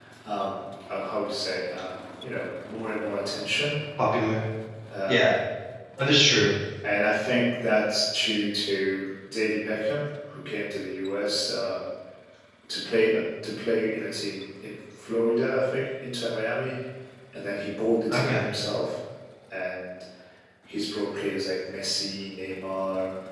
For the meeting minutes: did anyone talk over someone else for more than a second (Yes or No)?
No